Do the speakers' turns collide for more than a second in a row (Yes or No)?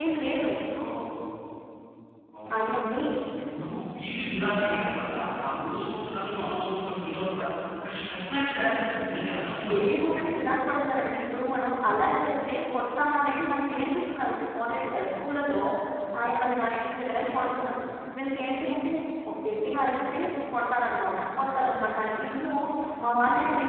No